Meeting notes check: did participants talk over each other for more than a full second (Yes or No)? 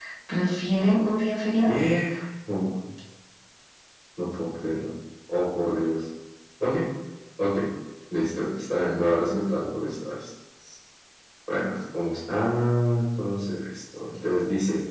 No